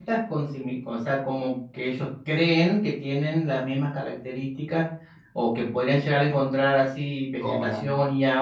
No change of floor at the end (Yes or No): Yes